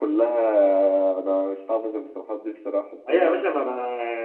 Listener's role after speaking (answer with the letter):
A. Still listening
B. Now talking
B